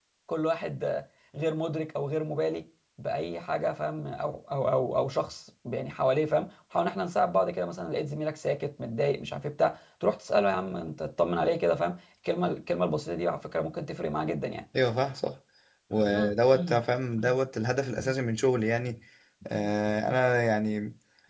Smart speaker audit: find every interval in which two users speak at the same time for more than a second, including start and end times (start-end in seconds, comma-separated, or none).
none